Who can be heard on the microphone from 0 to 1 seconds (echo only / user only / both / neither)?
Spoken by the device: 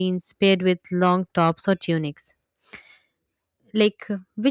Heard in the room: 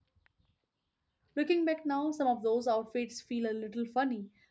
neither